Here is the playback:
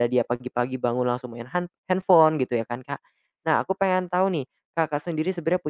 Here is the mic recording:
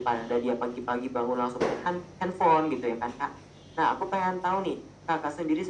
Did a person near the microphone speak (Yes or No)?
No